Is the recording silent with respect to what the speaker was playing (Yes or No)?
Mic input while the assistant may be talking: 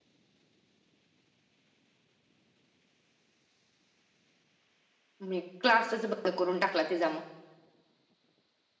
Yes